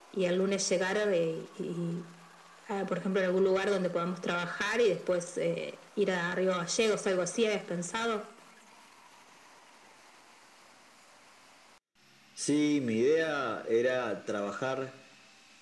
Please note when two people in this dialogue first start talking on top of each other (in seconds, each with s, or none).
none